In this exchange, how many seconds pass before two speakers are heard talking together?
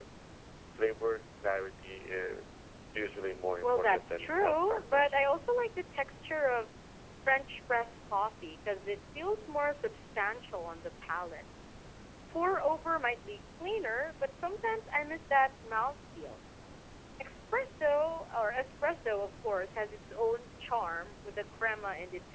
3.6 s

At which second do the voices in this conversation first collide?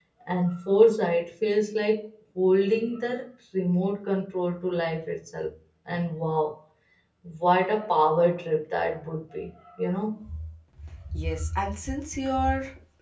none

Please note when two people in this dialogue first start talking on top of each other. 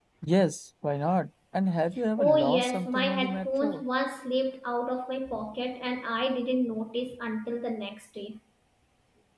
2.2 s

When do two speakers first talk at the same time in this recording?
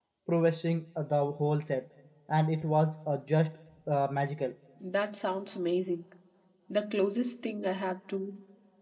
none

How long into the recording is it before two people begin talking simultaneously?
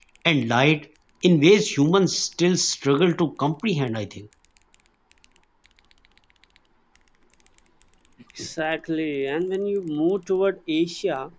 none

